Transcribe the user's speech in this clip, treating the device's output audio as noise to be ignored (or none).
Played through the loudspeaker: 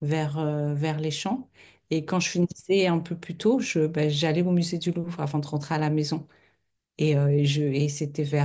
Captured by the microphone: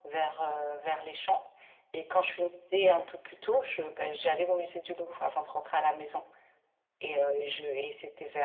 none